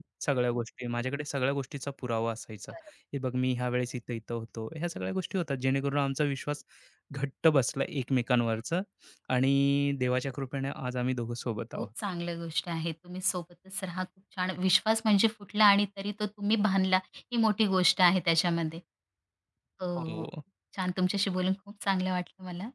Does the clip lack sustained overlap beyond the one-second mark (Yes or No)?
Yes